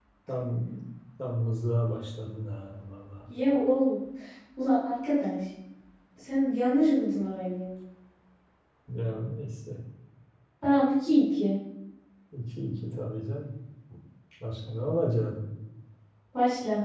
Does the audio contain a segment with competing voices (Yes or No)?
No